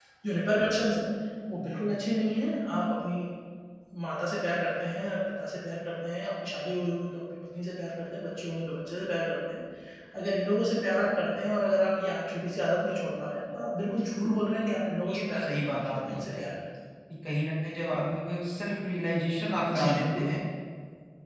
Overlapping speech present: Yes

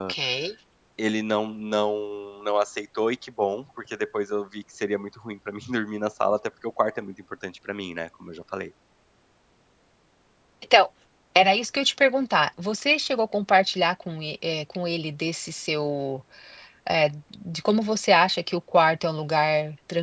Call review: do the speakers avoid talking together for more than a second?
Yes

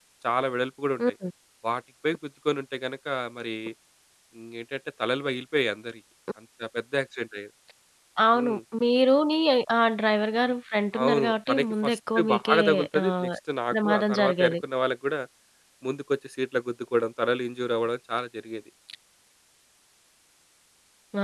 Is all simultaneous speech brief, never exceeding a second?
No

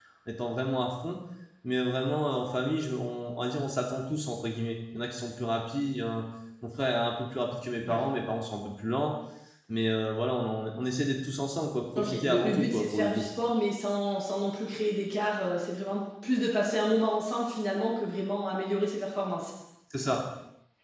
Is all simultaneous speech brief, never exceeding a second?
No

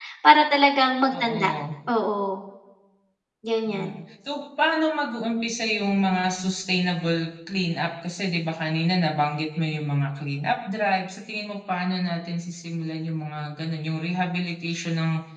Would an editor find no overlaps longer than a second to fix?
Yes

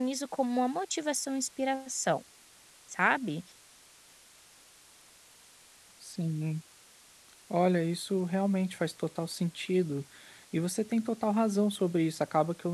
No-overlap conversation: Yes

